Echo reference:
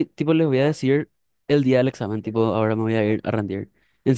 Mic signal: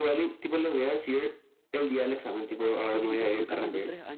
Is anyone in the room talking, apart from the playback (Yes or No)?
Yes